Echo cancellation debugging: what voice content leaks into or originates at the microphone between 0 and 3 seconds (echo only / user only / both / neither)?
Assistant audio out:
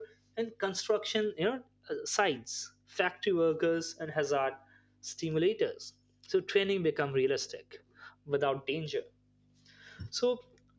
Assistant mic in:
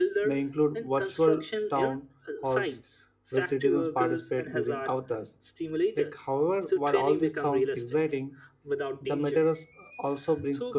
both